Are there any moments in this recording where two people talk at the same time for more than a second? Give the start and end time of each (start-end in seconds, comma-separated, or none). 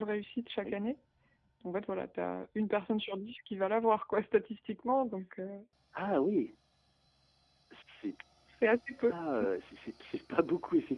none